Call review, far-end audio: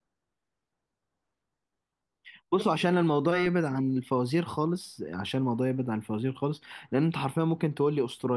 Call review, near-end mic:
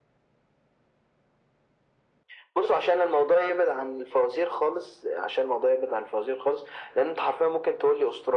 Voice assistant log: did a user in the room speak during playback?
No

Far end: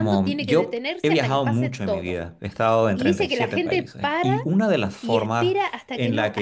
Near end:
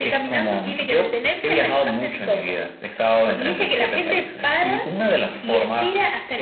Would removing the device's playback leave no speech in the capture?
Yes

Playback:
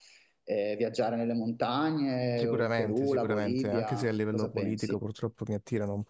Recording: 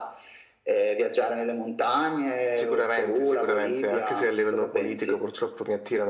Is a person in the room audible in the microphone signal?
No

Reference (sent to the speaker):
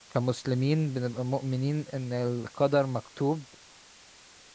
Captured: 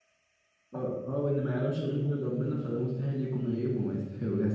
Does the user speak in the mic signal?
Yes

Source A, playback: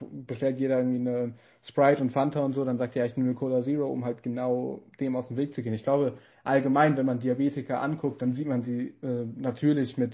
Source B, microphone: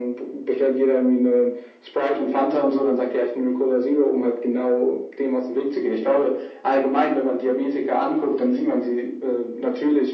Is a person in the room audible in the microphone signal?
No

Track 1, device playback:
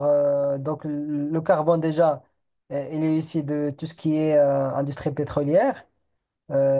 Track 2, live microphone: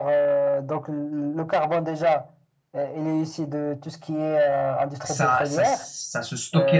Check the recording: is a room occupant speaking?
Yes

